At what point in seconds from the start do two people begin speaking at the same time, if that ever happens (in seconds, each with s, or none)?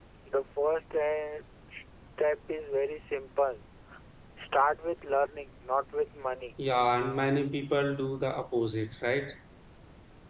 none